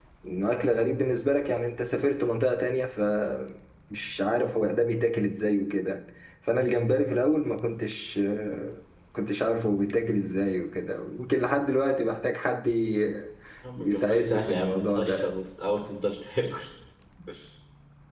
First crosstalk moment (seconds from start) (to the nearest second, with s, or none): 14 s